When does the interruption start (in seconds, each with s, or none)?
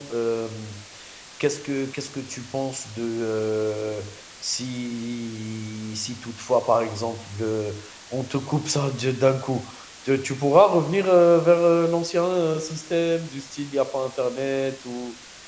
none